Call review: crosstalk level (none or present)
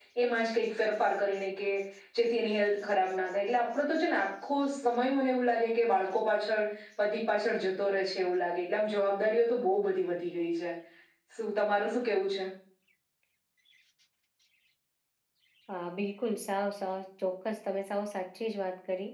none